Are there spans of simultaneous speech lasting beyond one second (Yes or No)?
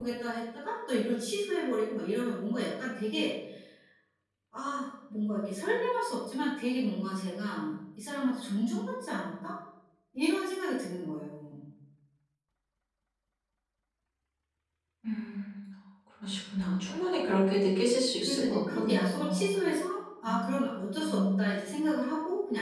Yes